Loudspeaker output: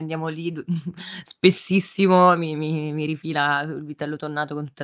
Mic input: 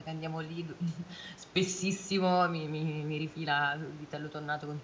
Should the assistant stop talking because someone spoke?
No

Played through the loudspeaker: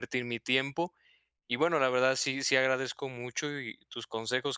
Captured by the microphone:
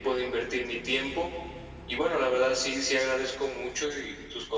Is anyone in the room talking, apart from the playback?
No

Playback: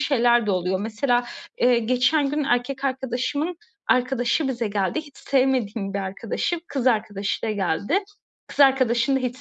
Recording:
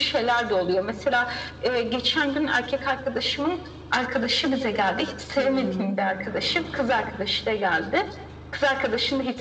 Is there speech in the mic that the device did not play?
Yes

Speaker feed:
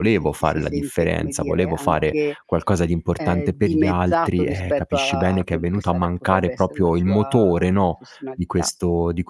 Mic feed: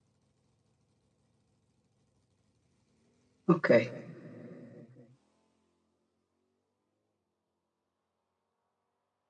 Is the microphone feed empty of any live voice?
No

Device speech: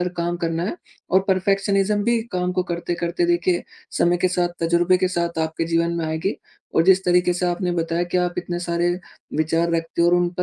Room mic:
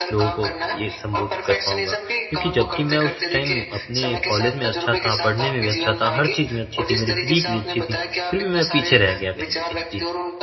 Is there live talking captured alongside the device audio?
Yes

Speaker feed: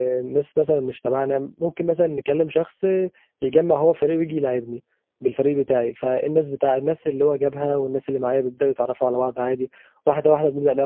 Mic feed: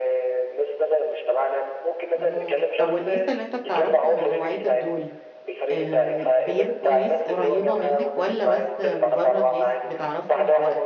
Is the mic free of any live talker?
No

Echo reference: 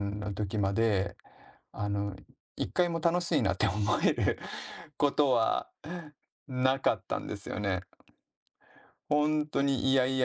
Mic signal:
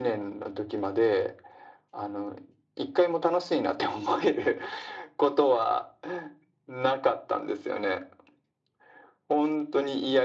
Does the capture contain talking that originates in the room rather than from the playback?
No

